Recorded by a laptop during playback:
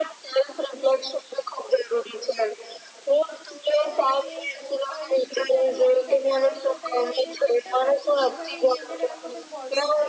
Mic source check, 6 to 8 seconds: both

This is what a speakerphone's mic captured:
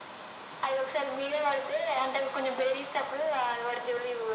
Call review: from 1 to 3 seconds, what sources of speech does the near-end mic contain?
echo only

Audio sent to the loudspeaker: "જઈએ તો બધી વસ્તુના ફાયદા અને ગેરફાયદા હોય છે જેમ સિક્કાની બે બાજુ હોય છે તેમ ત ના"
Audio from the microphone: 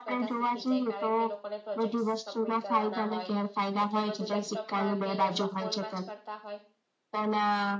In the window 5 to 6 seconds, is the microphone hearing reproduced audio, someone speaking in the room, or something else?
both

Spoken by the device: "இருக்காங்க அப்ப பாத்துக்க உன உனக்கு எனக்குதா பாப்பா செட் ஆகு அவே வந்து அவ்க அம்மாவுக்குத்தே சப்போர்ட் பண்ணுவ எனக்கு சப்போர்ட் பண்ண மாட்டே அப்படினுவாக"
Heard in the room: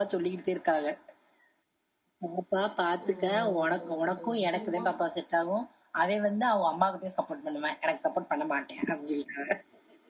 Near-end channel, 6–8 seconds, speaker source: echo only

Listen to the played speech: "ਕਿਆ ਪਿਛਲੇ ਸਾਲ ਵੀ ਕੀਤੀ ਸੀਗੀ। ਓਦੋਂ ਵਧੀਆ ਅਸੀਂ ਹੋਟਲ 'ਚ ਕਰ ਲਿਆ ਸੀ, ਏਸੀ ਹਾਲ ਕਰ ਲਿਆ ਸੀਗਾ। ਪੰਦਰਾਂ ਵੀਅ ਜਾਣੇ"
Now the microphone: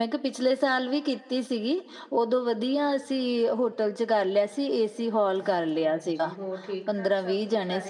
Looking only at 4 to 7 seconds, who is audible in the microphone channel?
both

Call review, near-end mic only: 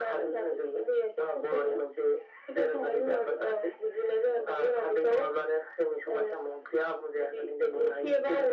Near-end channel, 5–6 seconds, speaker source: echo only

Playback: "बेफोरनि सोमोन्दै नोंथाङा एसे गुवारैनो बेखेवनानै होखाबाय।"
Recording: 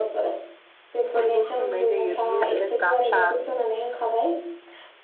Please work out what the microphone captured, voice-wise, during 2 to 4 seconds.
both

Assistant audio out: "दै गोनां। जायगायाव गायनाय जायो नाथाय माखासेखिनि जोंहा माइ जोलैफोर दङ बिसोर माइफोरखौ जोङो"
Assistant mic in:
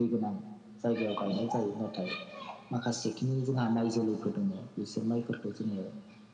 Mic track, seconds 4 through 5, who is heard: echo only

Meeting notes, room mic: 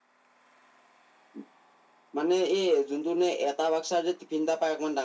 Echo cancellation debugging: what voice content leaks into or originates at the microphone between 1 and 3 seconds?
echo only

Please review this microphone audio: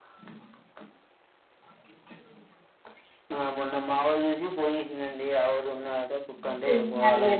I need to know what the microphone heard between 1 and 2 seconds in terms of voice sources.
neither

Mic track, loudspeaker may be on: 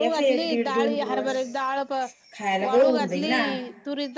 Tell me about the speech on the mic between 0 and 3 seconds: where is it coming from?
both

